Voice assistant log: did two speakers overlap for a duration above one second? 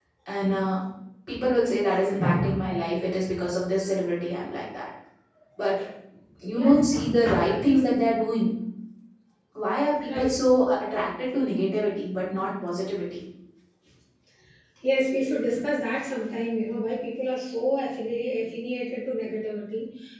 Yes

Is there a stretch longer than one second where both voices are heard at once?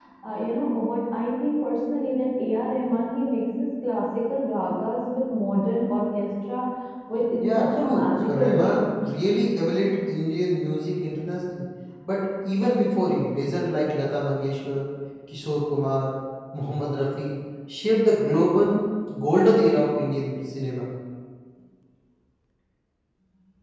Yes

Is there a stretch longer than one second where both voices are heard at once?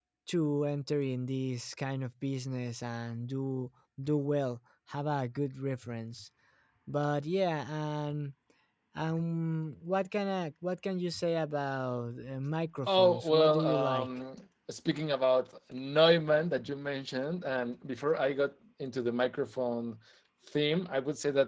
Yes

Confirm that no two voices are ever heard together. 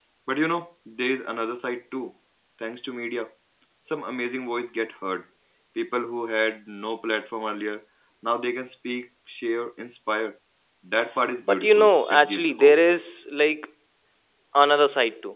No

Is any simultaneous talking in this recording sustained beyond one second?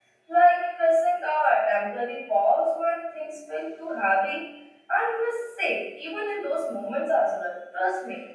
No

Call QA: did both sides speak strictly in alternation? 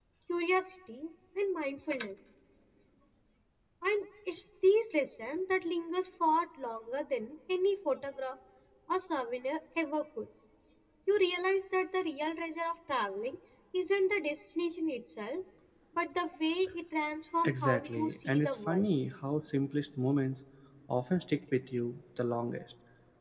No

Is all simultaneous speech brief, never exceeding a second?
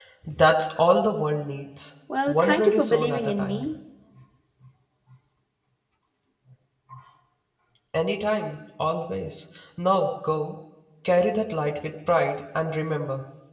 No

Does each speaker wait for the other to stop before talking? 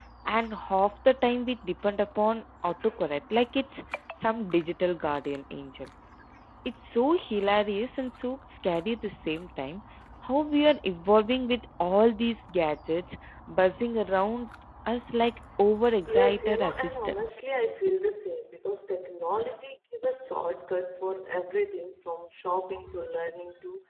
No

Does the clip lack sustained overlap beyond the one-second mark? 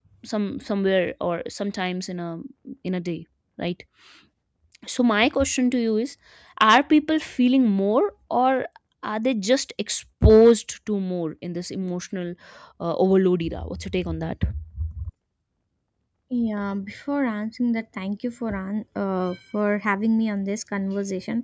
Yes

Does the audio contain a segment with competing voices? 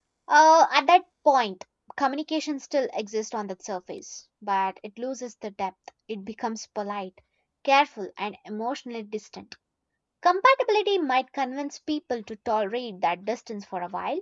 No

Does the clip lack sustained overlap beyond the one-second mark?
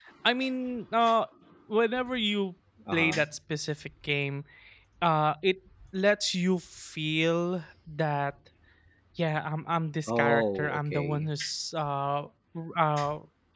No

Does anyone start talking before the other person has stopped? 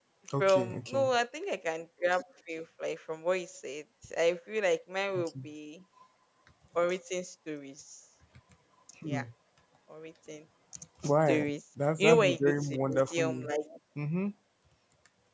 Yes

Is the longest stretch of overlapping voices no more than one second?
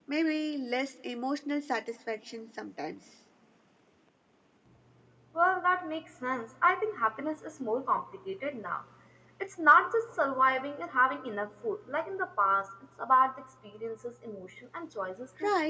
Yes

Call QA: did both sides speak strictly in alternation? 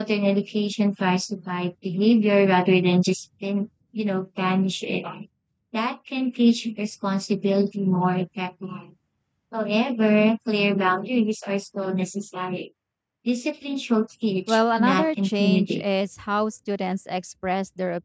No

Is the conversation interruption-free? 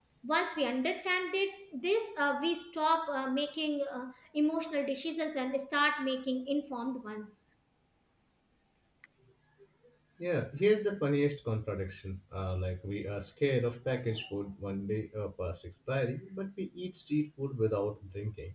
Yes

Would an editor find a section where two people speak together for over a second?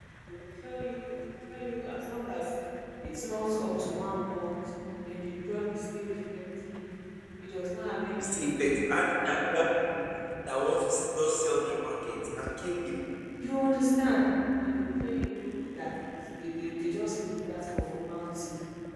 No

